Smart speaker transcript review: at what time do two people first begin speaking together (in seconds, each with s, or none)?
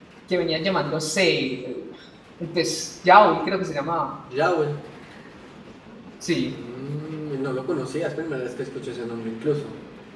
none